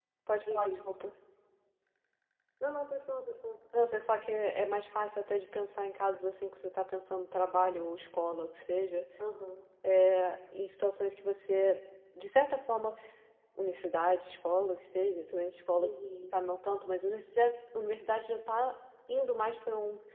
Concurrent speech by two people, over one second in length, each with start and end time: none

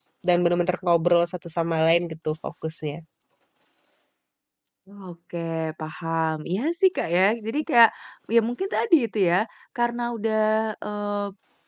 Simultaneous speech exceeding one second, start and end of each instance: none

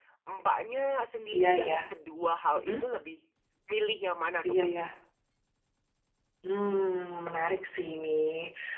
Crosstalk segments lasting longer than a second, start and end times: none

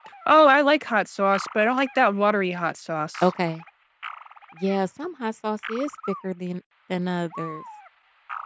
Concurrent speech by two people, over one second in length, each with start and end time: none

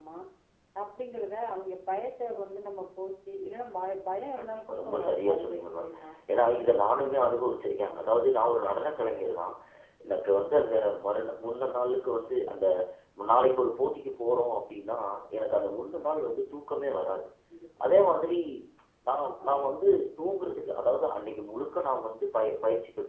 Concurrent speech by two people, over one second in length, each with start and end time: 4.4-5.9

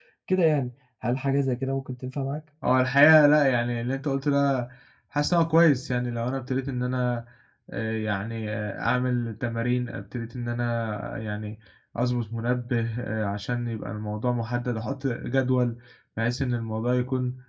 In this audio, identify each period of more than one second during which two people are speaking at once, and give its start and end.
none

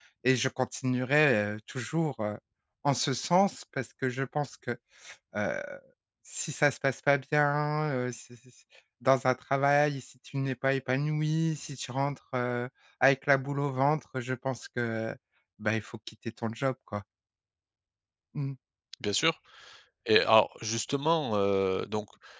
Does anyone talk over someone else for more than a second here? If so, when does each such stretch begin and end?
none

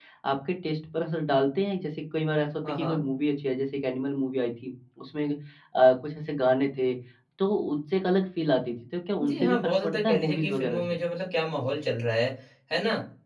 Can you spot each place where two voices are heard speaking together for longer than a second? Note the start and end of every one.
9.3-10.8

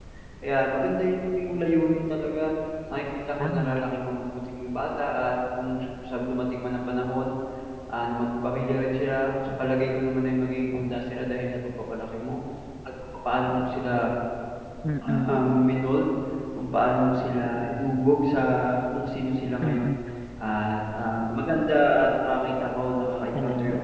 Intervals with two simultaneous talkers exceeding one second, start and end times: none

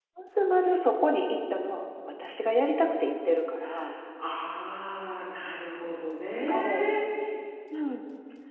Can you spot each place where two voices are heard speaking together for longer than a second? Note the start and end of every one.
none

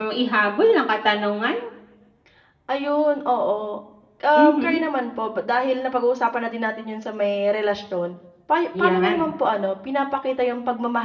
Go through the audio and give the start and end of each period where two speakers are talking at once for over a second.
none

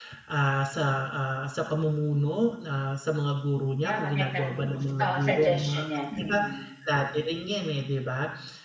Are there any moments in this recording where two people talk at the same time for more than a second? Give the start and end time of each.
3.8-6.4

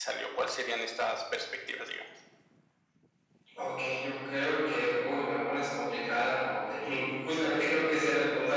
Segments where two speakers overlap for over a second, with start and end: none

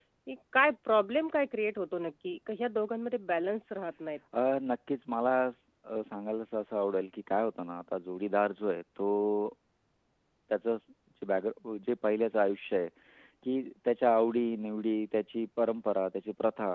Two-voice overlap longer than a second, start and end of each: none

